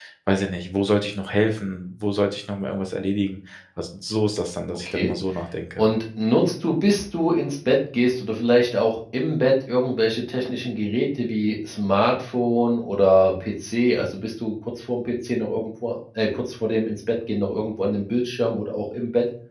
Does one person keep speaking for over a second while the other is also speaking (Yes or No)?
No